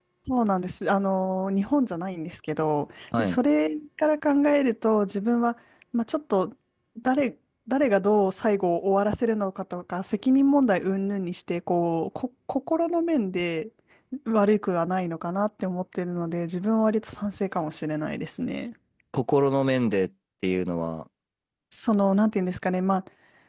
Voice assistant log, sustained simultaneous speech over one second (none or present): none